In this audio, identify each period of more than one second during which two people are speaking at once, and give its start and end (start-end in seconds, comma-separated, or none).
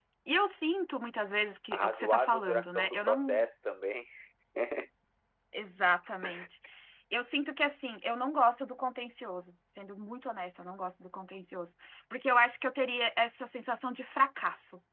1.7-3.5